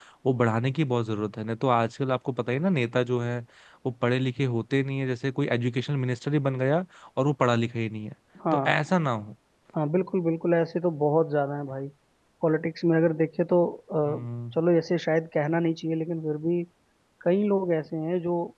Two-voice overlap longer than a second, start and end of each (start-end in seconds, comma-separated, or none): none